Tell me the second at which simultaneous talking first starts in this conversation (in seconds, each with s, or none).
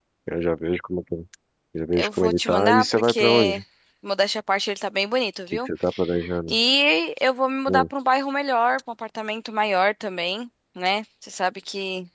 1.9 s